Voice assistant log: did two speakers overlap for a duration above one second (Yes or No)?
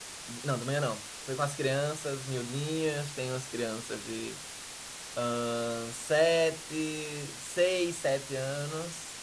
No